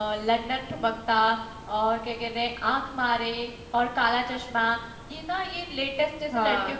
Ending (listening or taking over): listening